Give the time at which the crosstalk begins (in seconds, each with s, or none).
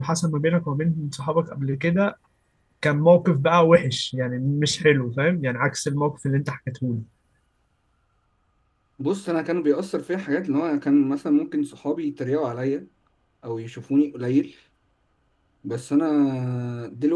none